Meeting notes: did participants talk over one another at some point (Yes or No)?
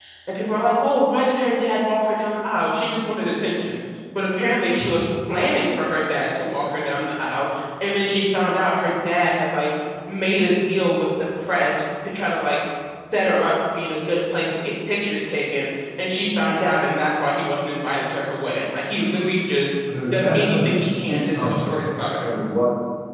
Yes